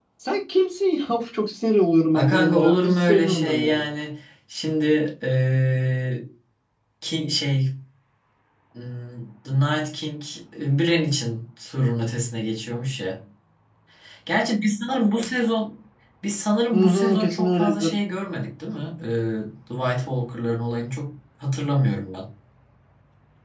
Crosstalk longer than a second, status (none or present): present